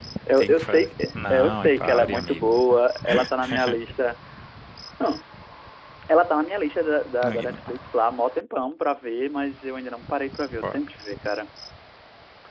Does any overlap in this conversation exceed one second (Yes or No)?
Yes